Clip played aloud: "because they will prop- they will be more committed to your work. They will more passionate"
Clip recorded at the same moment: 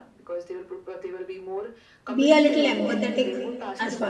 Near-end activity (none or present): present